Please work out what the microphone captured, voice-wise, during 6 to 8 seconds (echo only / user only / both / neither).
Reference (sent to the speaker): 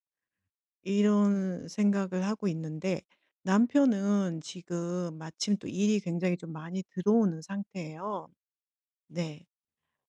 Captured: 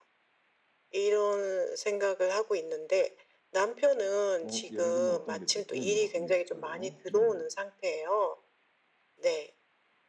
both